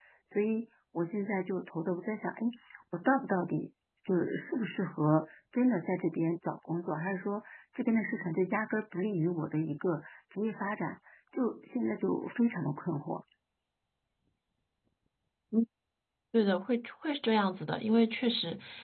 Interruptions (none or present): none